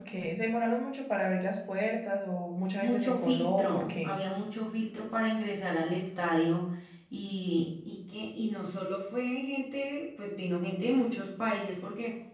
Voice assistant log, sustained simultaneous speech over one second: present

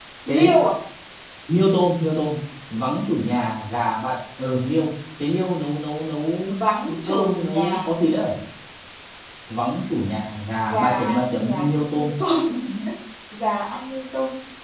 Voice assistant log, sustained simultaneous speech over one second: present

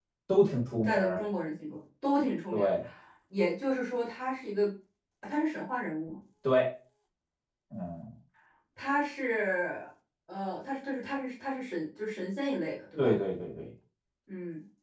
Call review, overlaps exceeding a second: none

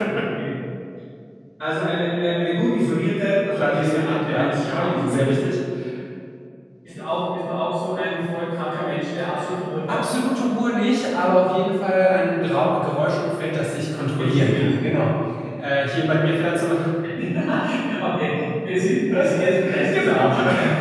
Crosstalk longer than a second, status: present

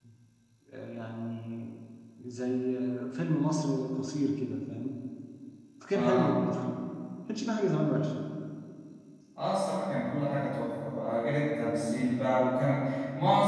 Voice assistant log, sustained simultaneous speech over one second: none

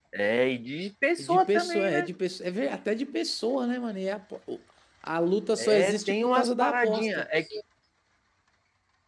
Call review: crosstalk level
present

